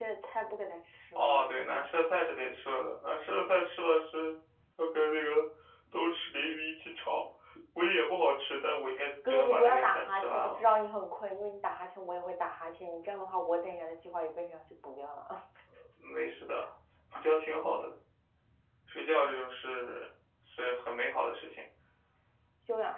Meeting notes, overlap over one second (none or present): present